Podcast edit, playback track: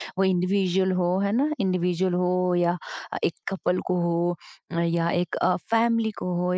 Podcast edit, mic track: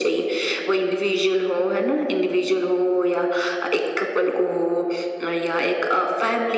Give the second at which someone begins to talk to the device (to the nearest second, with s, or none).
none